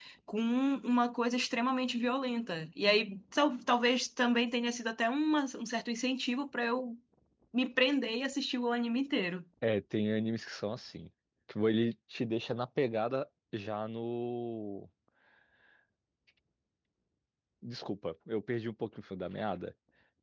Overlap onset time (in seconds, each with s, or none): none